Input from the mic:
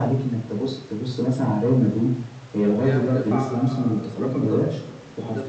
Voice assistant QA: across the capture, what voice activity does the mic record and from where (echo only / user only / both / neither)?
both